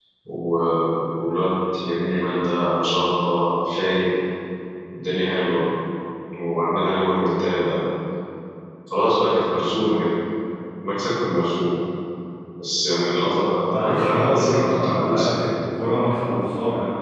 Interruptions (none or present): present